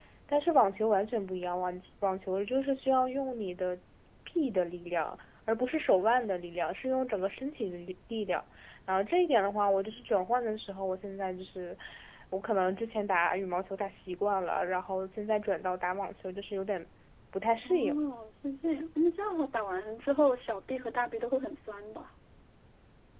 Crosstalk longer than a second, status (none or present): none